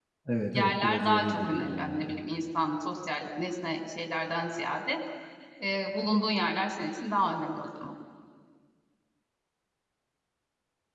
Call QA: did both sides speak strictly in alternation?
No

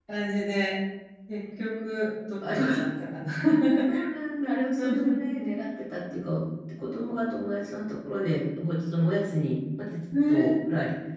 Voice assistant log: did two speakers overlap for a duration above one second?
No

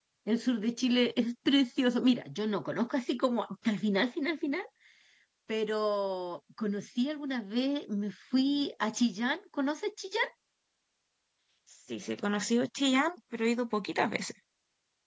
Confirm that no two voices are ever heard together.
Yes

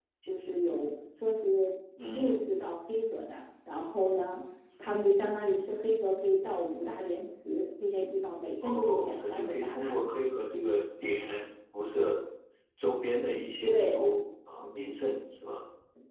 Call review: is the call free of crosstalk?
No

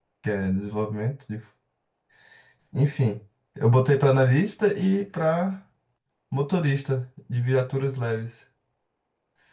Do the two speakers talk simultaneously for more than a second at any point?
No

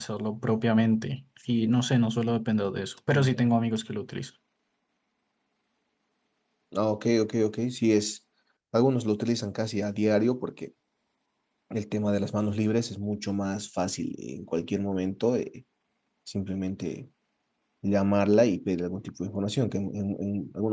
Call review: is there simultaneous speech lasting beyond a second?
No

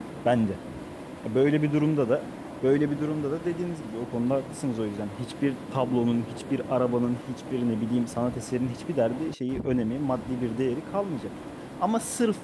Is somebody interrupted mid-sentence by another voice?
No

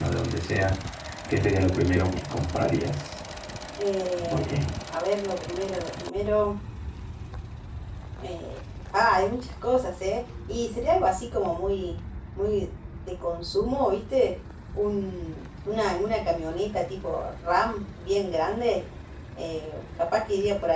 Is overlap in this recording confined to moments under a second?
Yes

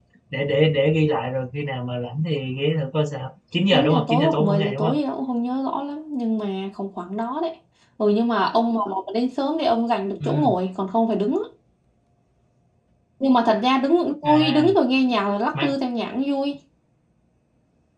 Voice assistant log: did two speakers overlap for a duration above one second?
Yes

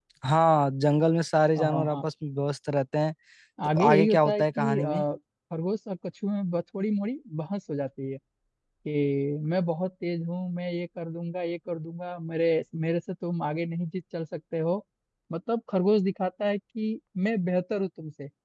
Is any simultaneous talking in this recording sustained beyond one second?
Yes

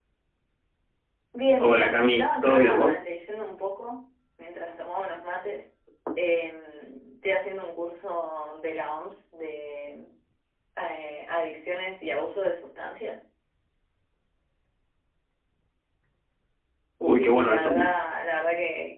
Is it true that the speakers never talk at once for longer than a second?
No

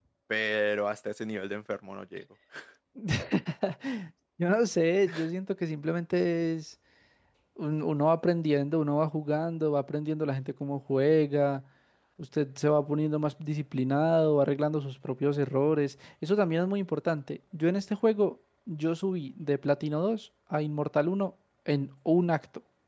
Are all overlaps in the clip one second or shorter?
Yes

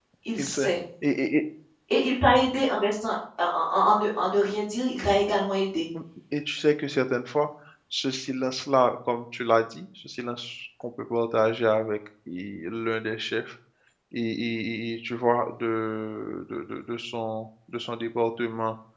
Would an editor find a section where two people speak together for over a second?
No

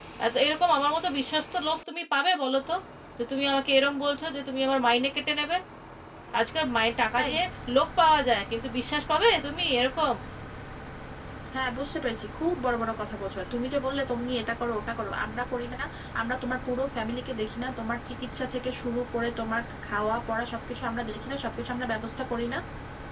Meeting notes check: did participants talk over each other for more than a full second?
No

